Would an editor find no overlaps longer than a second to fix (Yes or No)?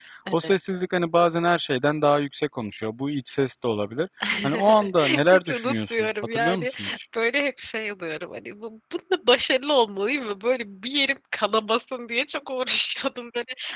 No